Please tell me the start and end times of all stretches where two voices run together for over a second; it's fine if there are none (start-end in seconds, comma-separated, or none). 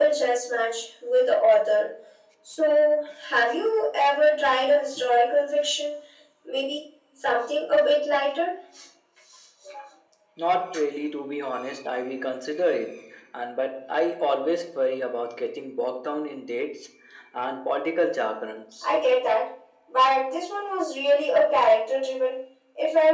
none